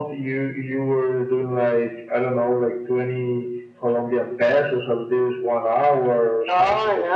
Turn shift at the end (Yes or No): Yes